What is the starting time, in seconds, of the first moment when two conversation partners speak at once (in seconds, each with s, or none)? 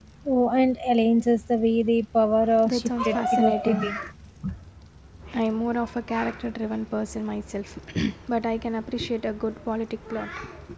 2.4 s